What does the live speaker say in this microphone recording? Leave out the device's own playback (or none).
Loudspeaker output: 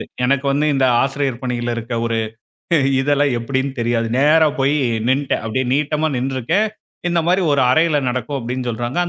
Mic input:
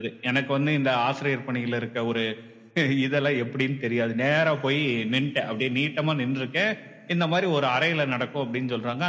none